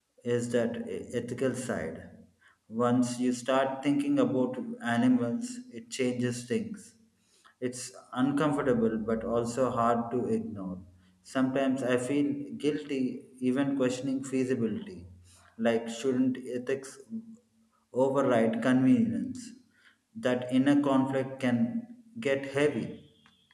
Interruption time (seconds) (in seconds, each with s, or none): none